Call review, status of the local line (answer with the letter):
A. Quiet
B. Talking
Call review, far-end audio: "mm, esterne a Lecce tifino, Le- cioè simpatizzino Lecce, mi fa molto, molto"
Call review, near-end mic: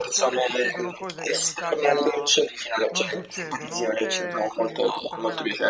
B